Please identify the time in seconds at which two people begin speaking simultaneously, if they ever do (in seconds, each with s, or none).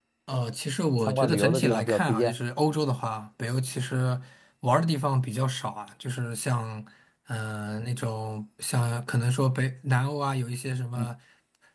1.1 s